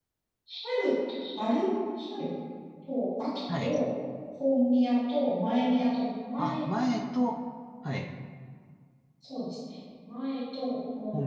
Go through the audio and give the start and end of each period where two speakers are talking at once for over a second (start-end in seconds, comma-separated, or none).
none